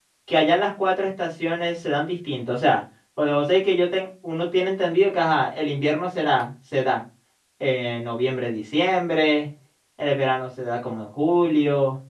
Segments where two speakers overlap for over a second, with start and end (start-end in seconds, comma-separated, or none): none